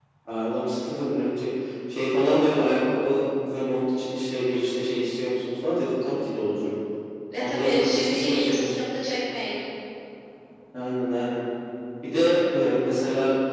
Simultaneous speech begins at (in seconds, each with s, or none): 7.4 s